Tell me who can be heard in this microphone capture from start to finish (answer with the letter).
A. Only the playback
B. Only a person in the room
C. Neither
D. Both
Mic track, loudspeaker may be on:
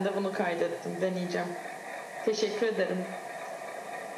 A